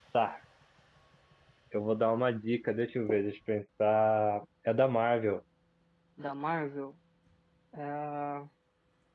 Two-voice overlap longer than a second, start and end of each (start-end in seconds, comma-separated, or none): none